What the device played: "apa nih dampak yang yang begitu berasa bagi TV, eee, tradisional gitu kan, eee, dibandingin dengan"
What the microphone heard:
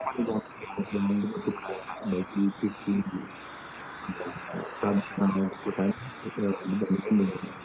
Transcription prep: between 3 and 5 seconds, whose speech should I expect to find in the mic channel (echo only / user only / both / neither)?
echo only